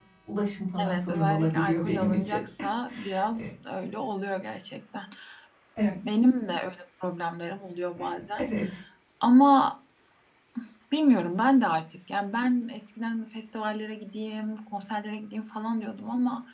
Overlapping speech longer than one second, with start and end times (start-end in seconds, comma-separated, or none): 0.8-2.4